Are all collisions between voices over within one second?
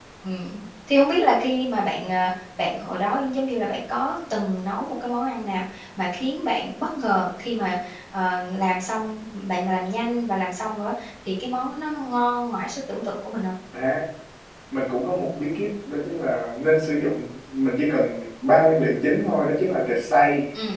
Yes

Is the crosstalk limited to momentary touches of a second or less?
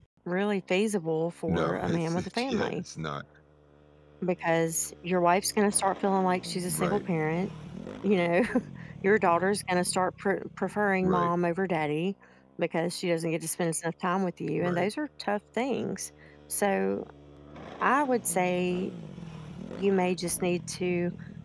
No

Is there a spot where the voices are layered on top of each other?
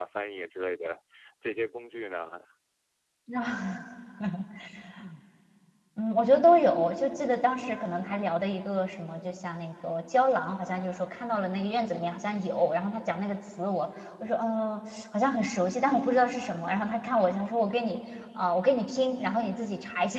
No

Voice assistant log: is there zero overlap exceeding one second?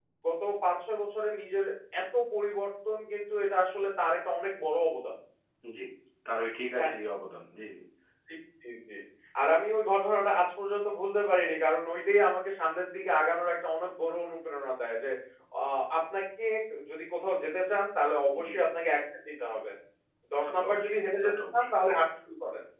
No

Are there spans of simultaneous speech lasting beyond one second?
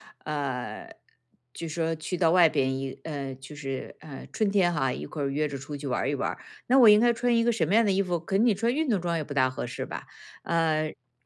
No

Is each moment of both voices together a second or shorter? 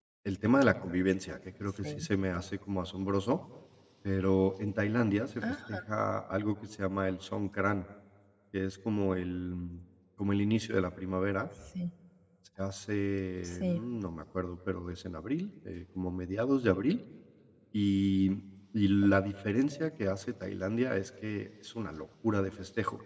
Yes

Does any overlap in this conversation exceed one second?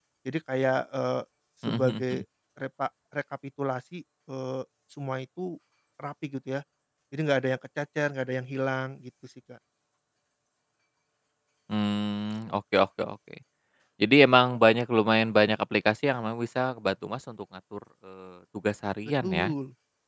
No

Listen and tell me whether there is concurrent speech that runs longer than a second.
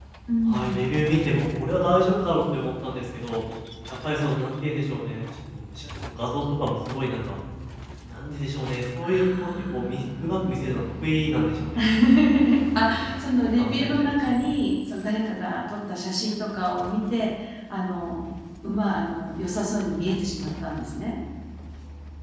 Yes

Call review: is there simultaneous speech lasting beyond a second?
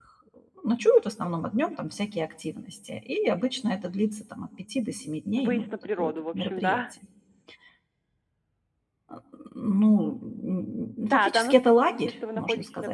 Yes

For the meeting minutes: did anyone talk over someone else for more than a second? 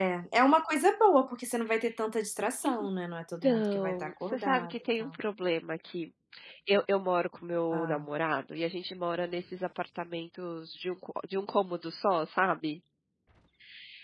Yes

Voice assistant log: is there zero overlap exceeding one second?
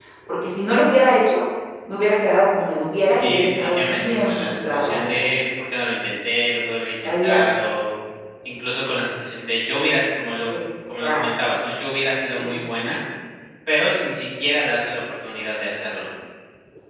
No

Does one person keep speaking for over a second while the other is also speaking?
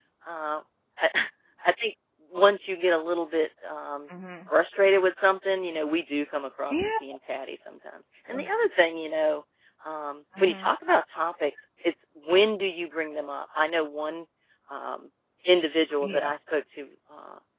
No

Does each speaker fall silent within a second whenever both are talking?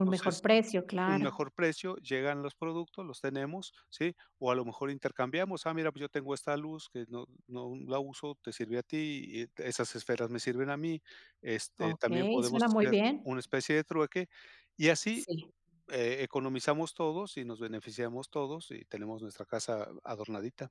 No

